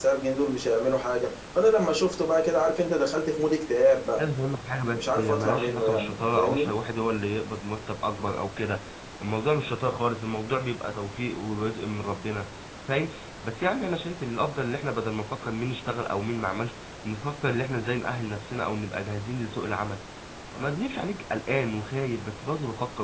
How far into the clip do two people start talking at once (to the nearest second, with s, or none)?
5 s